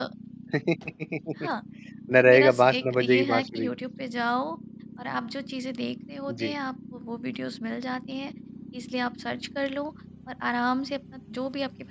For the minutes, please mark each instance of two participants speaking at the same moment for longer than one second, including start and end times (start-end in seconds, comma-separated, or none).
2.2-3.7